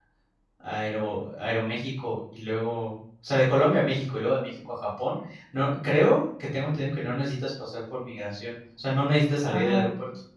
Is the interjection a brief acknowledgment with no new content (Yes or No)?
No